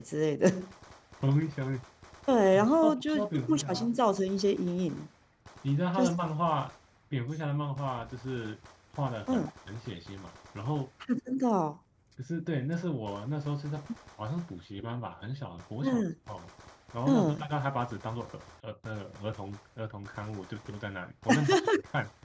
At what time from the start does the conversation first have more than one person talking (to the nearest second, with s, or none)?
3 s